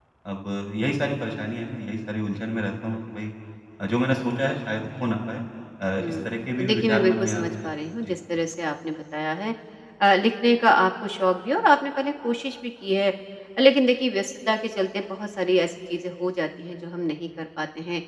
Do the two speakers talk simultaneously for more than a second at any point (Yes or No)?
Yes